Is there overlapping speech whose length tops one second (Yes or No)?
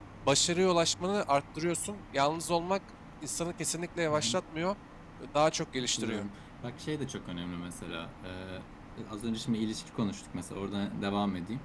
No